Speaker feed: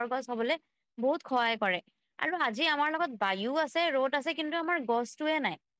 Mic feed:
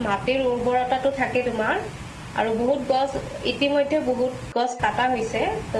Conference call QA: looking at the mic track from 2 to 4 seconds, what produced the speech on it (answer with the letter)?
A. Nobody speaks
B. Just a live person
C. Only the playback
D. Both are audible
B